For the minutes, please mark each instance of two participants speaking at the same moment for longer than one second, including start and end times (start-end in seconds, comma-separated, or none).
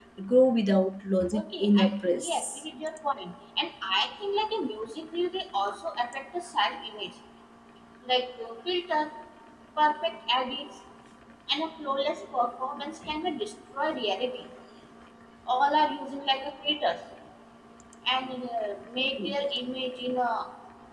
1.4-2.6